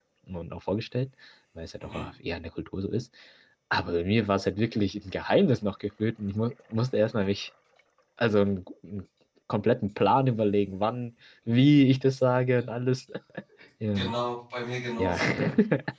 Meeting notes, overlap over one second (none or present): none